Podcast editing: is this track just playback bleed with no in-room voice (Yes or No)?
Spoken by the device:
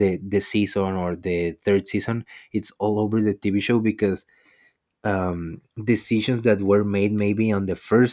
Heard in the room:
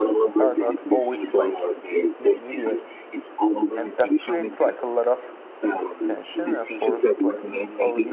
No